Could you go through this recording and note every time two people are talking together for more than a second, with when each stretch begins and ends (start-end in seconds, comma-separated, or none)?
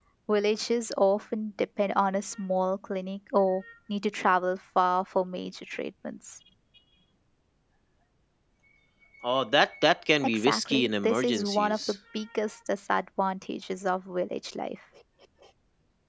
10.2-11.9